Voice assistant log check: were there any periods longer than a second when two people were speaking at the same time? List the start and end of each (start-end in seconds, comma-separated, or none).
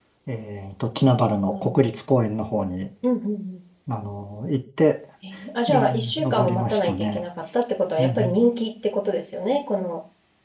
5.7-7.2